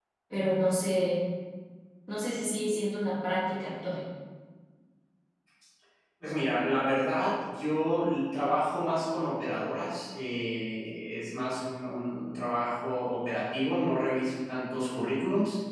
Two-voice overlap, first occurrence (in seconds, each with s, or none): none